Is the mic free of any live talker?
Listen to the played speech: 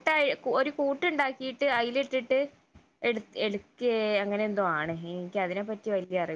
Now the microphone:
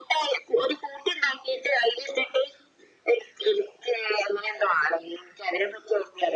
Yes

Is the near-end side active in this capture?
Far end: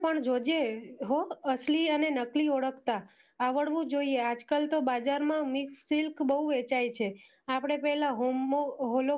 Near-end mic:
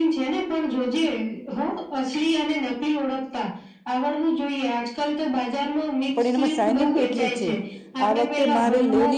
Yes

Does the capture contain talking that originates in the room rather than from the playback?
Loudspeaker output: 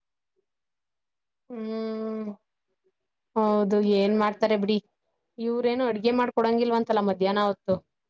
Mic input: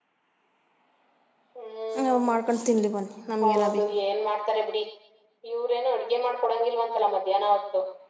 Yes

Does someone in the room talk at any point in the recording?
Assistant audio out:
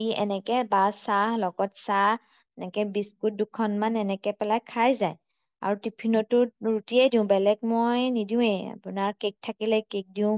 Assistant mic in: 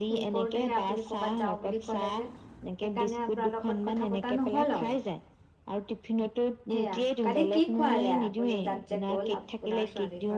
Yes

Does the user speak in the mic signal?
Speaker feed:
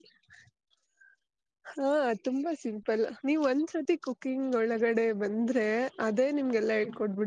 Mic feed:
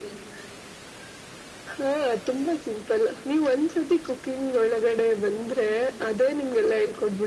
No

